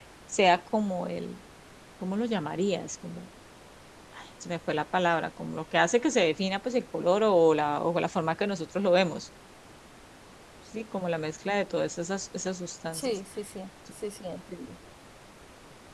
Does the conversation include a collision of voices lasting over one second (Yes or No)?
No